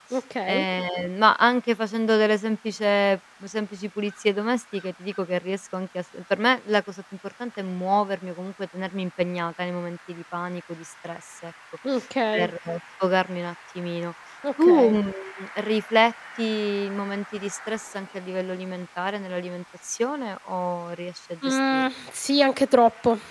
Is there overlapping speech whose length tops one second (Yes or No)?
No